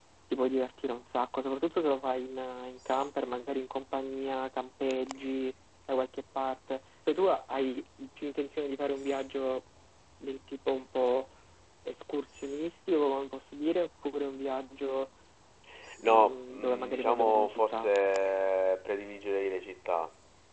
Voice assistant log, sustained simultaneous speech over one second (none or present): present